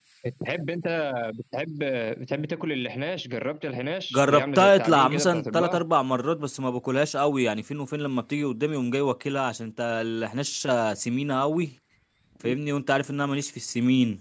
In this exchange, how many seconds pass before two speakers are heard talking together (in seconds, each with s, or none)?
4.1 s